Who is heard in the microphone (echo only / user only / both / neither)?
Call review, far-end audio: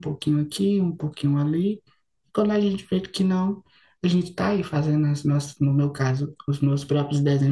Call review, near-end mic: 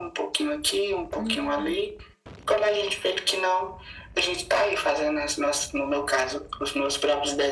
both